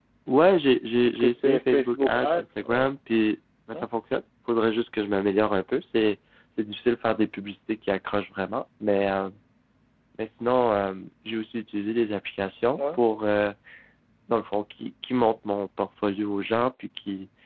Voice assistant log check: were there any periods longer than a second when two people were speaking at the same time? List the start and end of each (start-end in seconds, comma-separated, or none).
1.1-2.9